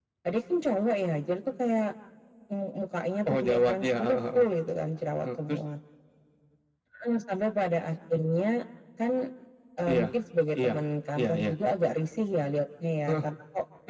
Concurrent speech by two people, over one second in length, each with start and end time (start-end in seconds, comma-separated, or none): 3.3-4.5